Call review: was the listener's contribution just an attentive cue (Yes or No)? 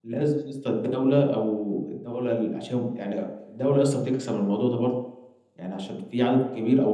Yes